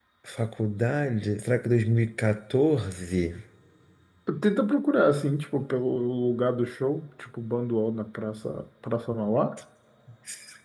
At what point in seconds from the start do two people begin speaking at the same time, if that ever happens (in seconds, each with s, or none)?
none